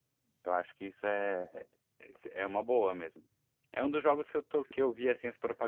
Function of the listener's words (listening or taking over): listening